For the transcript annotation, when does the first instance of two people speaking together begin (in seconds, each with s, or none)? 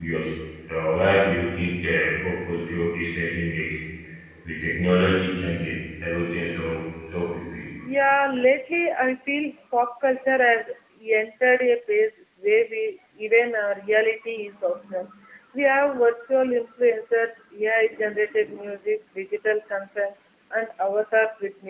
none